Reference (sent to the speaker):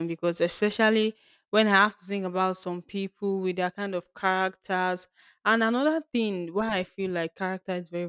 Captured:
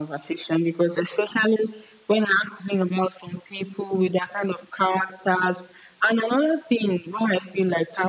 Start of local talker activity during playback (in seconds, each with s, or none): none